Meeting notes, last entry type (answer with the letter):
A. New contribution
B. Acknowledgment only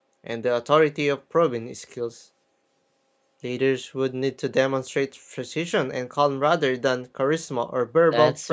A